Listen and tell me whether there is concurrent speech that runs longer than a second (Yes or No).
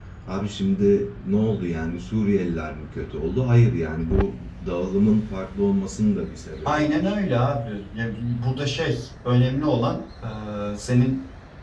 No